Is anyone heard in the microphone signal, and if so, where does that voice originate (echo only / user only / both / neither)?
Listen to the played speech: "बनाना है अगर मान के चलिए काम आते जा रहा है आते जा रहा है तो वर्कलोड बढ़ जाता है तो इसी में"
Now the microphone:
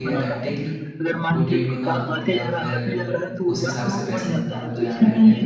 both